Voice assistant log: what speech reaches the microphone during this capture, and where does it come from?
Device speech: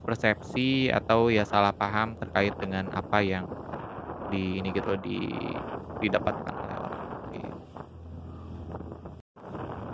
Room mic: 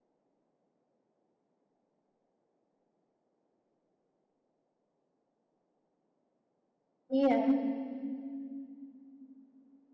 user only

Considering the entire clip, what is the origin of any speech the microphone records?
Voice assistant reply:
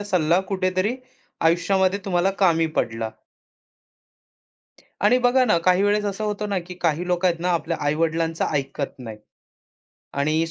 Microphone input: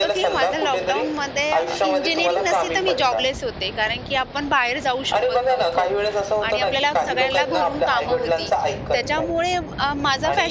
both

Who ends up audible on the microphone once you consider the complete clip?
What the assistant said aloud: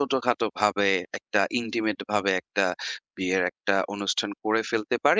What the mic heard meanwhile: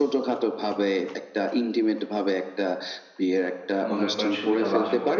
both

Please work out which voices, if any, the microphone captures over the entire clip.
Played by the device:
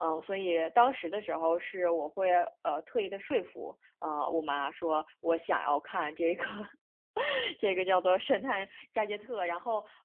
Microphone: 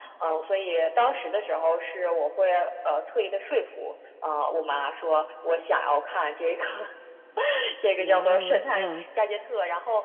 both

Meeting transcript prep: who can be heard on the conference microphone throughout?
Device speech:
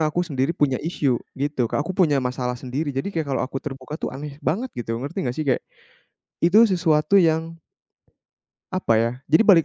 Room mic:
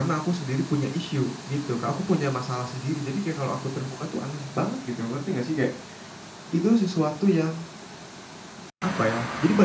echo only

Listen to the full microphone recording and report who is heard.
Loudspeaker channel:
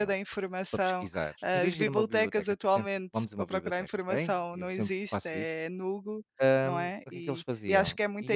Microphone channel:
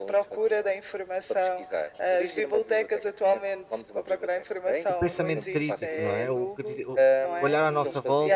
both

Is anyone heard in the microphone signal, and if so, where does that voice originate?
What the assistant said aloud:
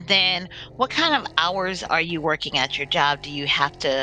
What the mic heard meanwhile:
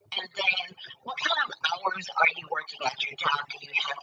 echo only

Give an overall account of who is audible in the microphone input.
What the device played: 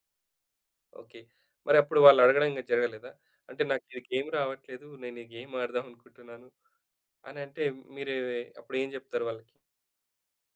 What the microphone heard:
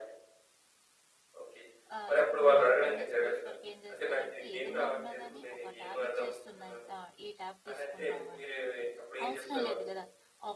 both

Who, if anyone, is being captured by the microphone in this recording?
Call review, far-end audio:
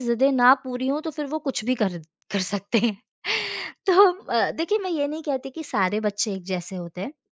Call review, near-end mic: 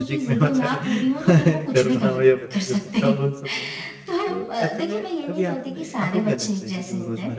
both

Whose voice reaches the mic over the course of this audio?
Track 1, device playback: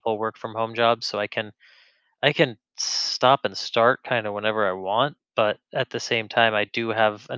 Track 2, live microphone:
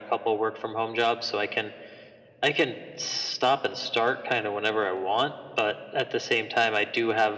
echo only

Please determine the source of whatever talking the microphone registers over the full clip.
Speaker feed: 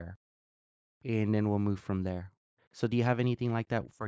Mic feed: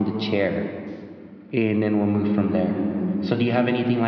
echo only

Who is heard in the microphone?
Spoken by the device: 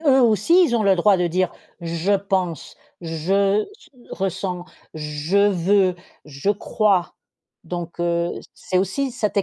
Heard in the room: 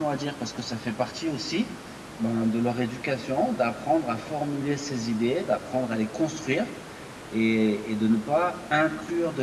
user only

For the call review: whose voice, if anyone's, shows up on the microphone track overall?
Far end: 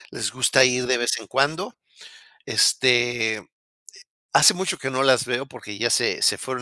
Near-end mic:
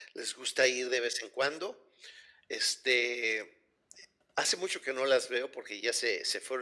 echo only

